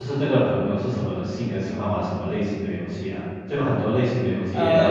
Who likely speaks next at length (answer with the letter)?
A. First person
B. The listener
B